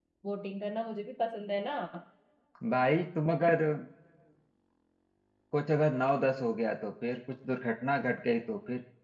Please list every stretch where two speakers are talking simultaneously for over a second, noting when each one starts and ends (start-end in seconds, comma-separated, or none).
none